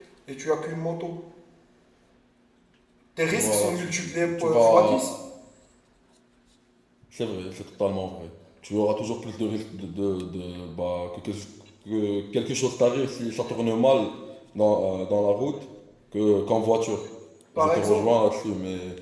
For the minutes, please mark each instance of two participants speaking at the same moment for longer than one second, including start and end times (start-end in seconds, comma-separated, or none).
3.3-4.9